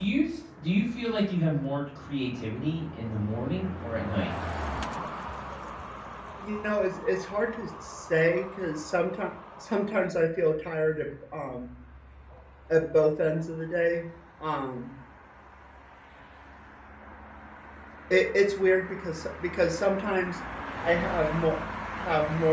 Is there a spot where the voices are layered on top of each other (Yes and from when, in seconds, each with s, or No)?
No